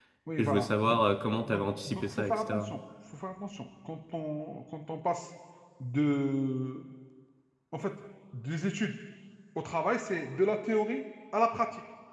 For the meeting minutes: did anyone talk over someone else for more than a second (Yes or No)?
Yes